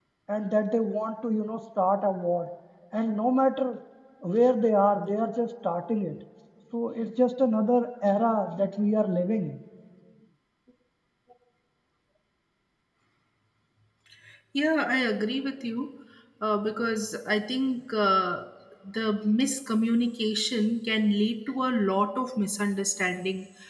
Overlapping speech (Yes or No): No